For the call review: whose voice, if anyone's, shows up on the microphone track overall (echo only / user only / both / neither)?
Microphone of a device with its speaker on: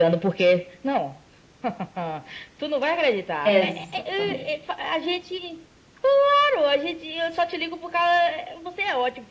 both